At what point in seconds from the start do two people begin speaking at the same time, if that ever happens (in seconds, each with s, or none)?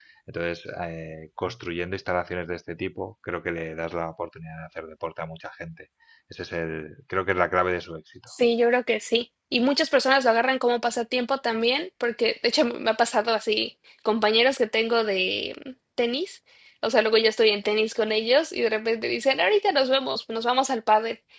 none